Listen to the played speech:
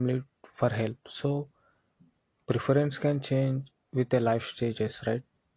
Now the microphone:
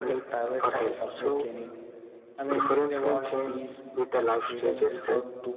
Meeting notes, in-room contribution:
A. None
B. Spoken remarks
B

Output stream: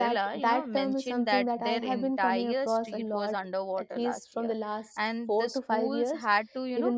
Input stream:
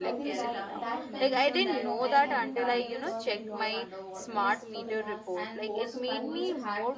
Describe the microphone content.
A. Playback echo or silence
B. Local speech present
B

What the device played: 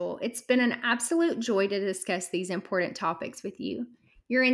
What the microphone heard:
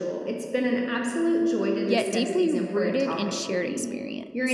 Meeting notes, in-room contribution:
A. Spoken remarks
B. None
A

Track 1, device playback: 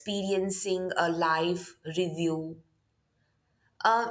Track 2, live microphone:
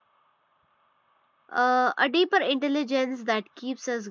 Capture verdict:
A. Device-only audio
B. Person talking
B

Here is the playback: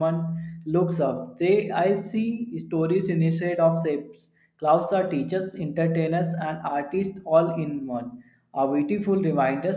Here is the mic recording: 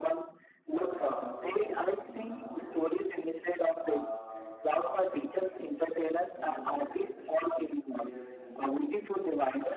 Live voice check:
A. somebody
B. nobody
A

